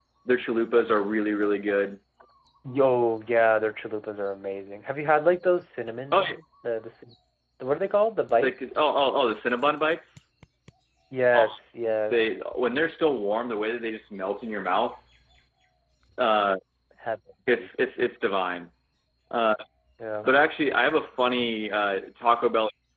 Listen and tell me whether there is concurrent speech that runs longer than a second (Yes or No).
No